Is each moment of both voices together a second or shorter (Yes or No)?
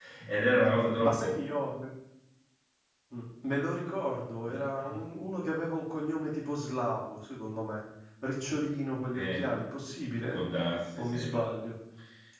Yes